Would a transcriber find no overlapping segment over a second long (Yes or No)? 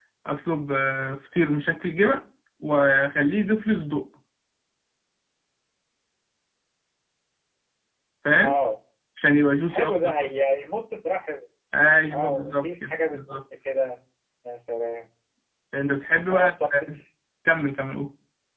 No